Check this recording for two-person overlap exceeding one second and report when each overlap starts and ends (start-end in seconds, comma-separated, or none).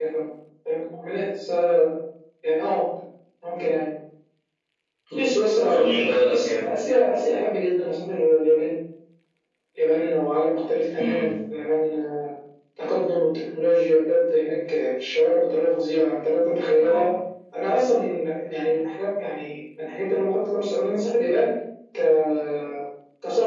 none